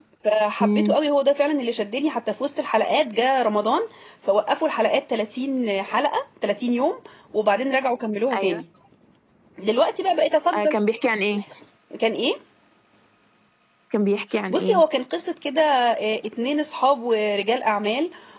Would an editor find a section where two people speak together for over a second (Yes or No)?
No